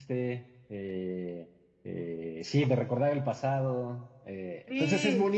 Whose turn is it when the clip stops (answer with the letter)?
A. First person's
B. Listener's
A